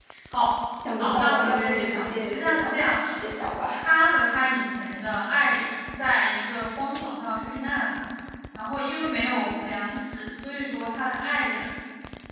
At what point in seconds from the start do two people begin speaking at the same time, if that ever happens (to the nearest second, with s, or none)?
1 s